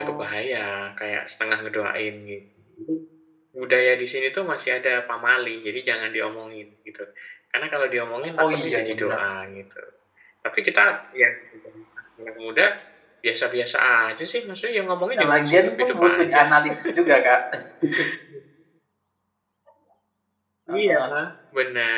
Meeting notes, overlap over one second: present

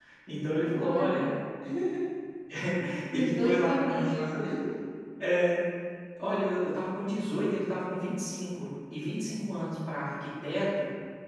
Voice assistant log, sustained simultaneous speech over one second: present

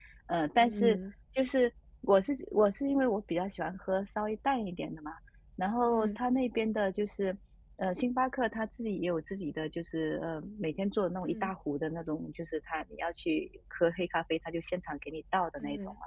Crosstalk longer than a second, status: none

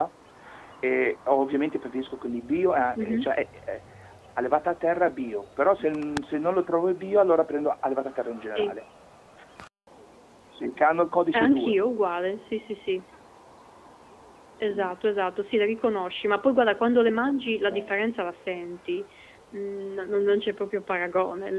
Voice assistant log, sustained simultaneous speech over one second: none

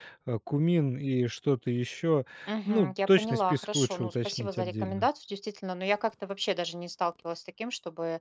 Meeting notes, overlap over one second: present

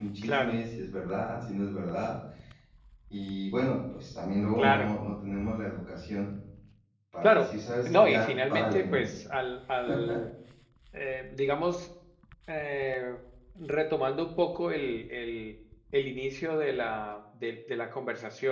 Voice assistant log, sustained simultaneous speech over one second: present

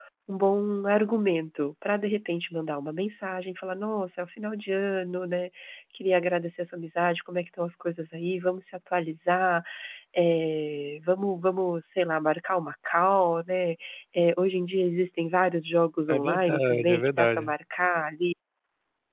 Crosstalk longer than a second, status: present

